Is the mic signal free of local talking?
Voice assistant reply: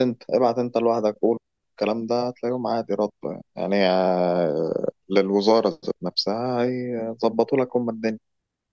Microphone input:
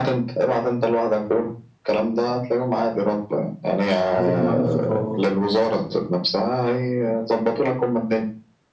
No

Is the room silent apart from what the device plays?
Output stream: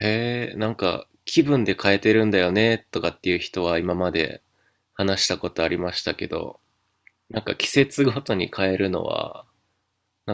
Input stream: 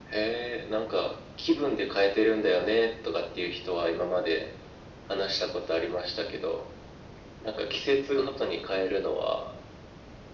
Yes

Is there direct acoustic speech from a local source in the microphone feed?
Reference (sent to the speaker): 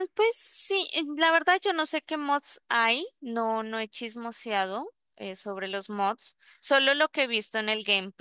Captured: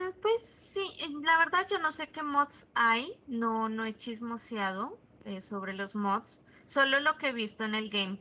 No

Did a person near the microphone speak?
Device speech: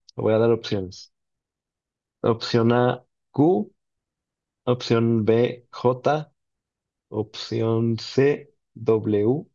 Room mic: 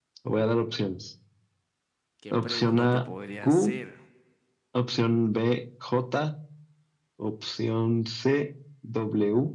Yes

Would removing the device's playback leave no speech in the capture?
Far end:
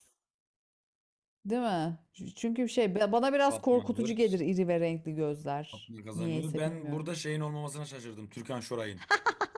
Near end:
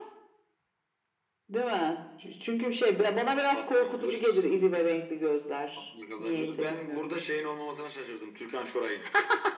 Yes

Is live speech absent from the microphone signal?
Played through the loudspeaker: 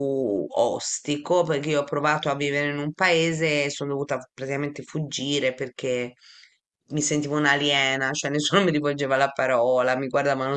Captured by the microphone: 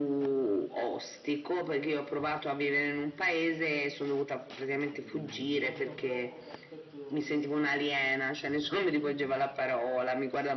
No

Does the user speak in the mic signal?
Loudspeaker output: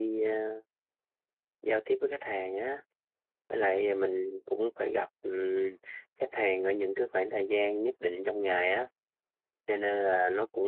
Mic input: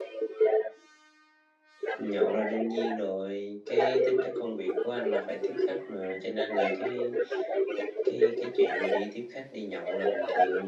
Yes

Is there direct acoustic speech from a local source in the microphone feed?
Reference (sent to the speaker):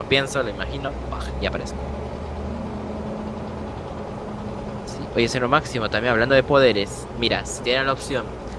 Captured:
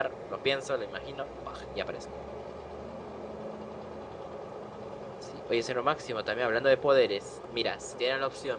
No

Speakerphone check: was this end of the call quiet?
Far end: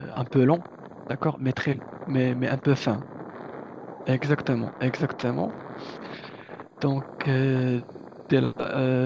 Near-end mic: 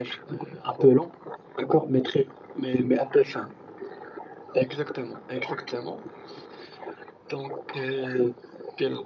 Yes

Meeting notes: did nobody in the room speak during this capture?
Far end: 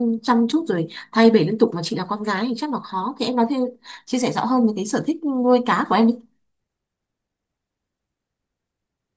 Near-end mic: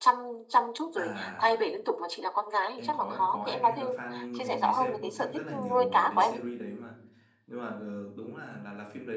No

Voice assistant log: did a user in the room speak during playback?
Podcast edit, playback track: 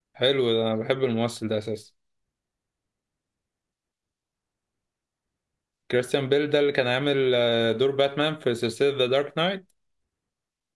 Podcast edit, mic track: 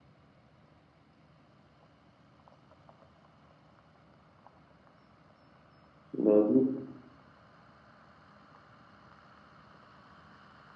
Yes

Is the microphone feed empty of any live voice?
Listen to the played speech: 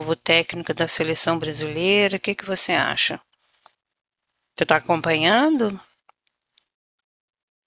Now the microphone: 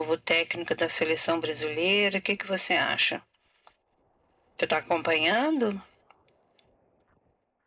Yes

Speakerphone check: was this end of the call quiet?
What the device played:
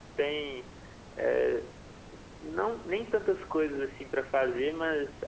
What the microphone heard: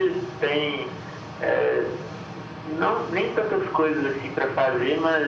Yes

